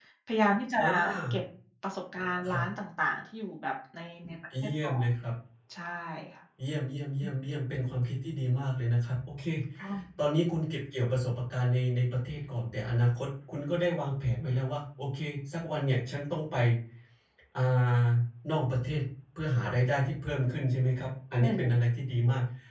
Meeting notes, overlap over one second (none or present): none